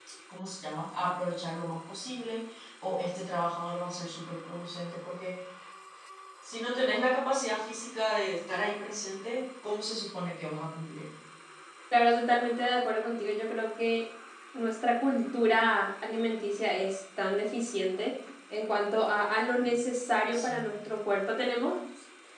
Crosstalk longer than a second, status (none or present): none